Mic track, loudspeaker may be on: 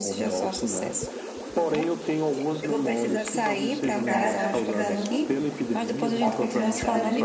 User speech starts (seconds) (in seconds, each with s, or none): 4.1 s